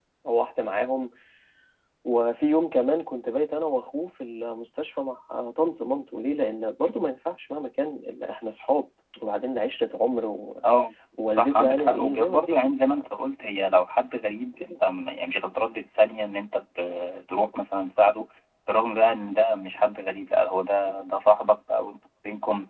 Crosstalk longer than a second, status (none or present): present